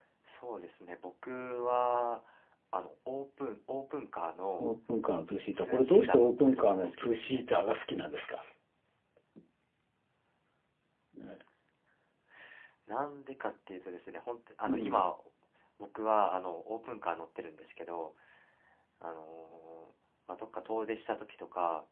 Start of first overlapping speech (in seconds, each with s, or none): 5.5 s